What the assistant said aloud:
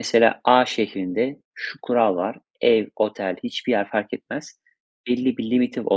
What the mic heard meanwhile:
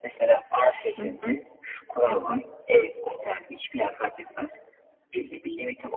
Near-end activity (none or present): present